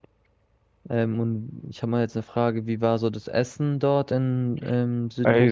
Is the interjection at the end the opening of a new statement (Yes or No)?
Yes